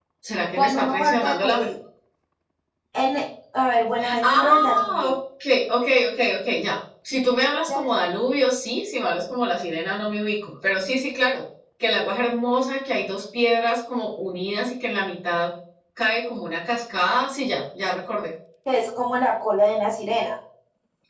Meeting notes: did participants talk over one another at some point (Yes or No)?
Yes